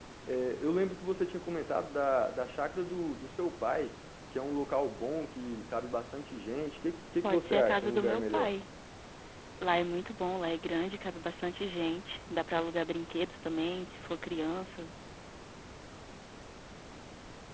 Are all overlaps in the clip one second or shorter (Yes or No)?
No